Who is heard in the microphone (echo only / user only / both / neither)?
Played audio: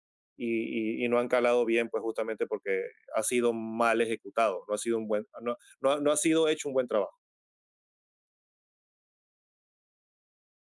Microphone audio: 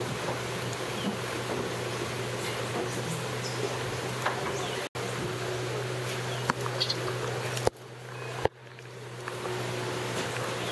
neither